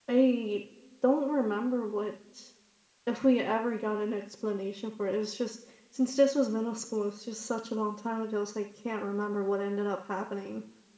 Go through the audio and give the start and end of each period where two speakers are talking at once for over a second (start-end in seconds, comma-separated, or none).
none